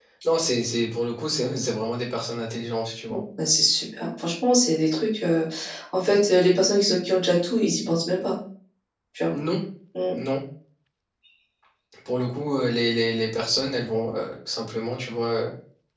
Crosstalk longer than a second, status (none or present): none